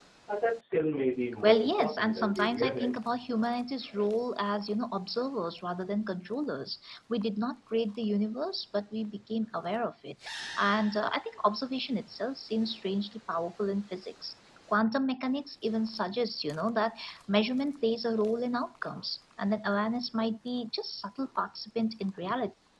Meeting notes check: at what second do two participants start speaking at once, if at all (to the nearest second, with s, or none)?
1 s